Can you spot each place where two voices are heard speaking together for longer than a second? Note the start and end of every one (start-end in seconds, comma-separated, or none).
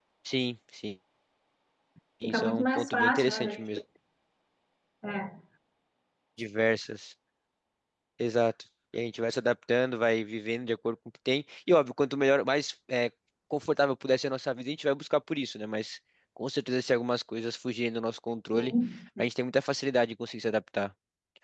2.2-3.6